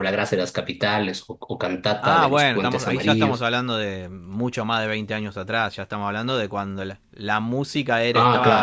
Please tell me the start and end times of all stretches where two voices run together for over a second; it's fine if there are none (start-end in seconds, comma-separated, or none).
2.0-3.4